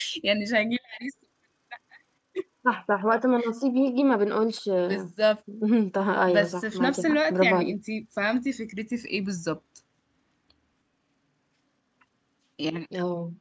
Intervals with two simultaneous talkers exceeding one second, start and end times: 6.3-7.7

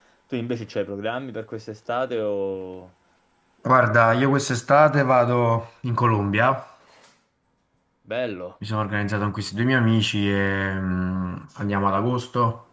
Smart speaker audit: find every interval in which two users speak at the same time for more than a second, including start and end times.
none

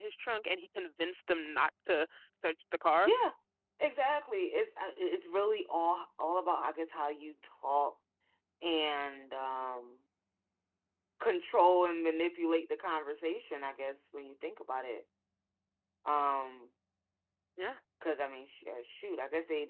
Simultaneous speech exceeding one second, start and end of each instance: none

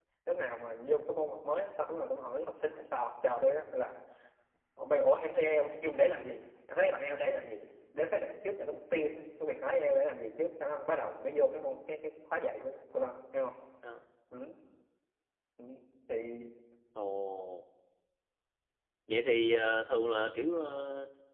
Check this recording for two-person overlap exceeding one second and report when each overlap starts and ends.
none

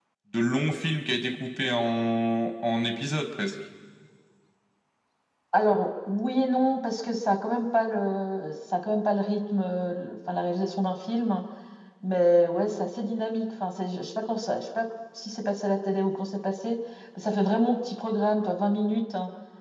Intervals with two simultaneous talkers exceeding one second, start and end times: none

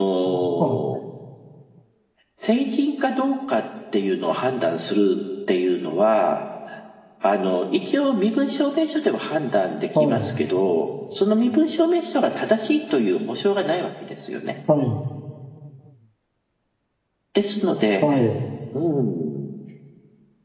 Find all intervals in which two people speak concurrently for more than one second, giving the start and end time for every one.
none

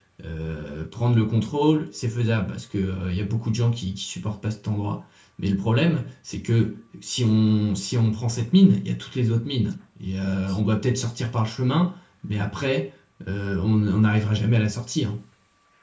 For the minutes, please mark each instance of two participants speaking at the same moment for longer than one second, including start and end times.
none

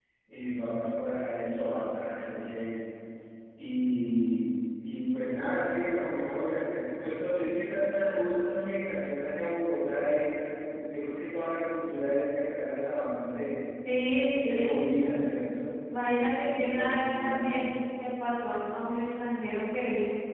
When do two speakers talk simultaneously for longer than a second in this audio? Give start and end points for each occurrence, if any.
16.4-17.7

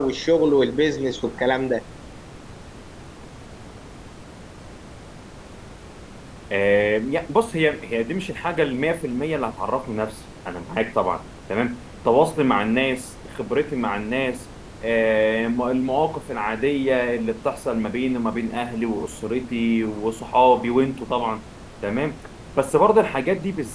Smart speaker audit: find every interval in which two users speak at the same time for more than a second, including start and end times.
none

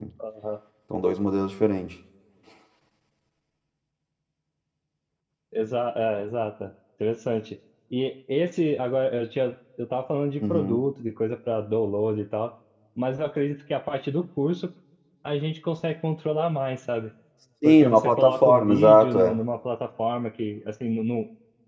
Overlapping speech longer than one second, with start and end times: 17.6-19.4

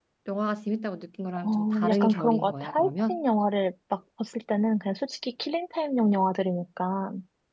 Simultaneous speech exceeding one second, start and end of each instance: 1.4-3.2

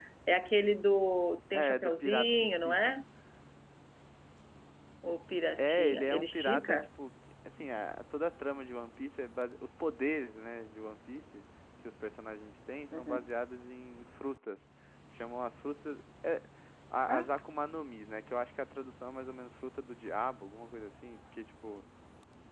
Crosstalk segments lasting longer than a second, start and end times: 1.5-3.0, 5.6-6.8

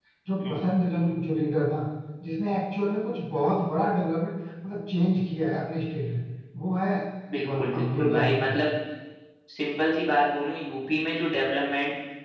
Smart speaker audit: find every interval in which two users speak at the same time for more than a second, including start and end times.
7.4-8.6

